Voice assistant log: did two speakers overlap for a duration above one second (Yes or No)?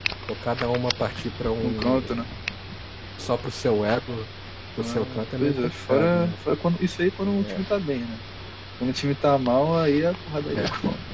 Yes